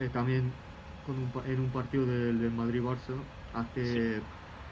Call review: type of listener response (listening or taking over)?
listening